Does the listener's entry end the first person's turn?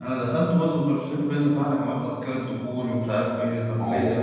No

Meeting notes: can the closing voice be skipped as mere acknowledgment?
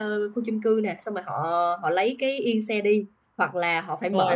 Yes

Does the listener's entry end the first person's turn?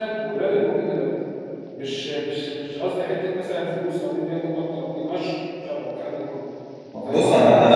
Yes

